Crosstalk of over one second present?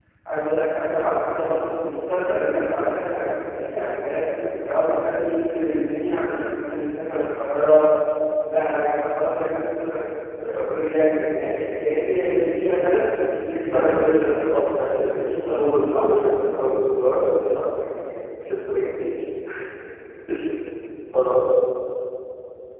Yes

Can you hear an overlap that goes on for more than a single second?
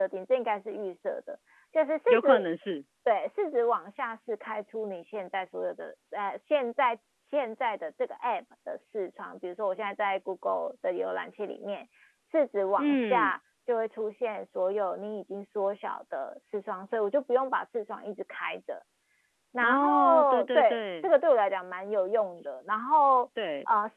Yes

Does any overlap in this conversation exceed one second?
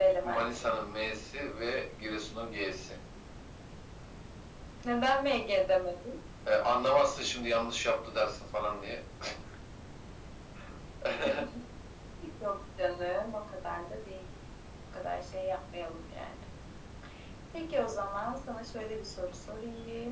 No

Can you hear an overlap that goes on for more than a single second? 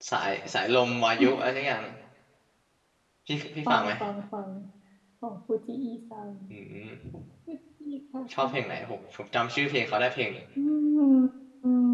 No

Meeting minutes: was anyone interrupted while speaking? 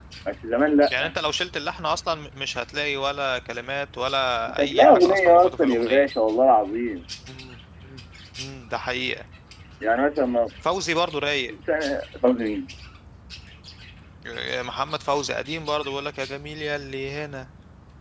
Yes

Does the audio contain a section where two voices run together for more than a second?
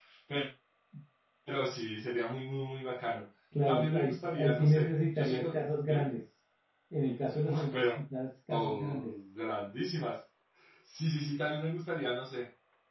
Yes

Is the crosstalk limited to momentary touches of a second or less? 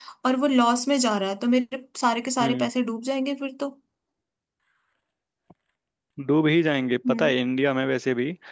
Yes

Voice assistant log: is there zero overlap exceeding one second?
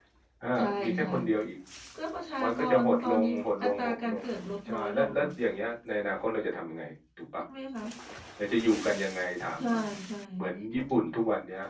No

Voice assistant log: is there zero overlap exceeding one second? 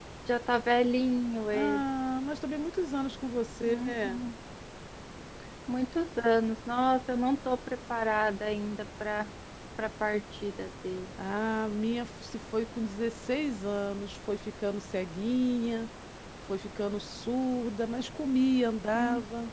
Yes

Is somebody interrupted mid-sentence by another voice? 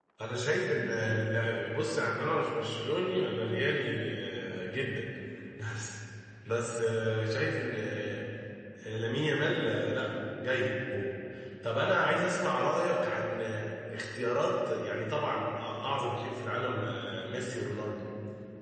No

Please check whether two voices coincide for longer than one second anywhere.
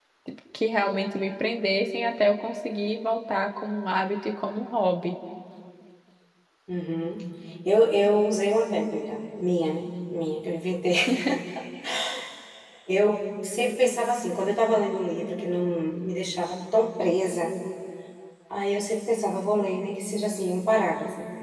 No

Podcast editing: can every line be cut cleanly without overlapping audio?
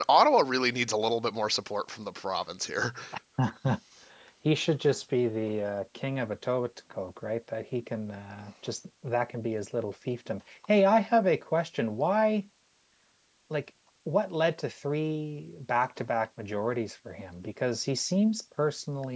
Yes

